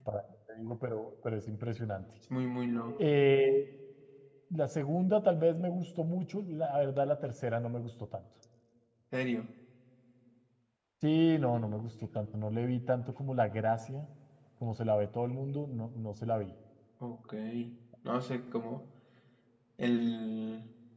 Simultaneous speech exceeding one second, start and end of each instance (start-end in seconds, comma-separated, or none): none